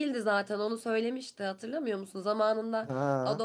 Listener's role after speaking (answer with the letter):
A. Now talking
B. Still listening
B